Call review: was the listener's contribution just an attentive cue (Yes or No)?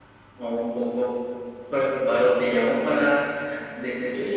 Yes